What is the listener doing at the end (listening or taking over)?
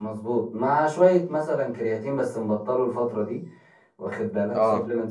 listening